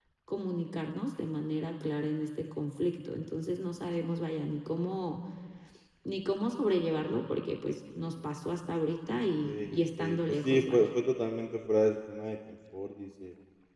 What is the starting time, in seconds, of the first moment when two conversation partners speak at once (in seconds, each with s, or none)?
9.4 s